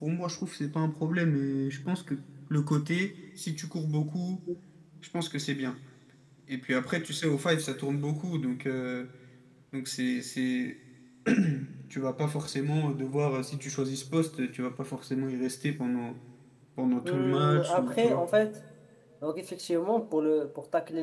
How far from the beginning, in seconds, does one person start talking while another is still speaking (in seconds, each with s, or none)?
17.0 s